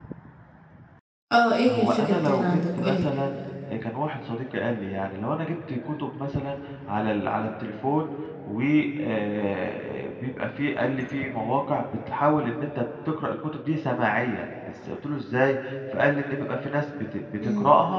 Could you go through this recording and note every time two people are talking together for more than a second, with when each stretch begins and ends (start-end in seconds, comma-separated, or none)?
1.7-3.1